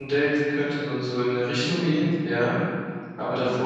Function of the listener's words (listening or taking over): listening